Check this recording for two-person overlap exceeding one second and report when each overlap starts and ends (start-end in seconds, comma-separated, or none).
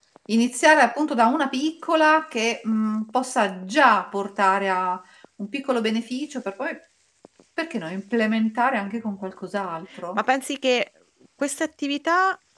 none